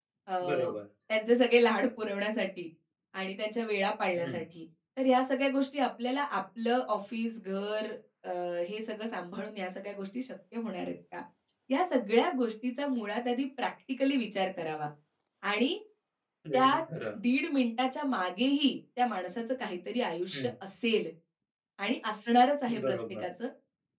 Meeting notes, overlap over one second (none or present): none